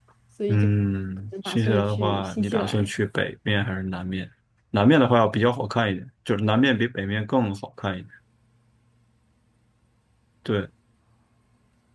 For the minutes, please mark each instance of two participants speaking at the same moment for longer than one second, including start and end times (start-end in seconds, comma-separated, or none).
1.4-2.9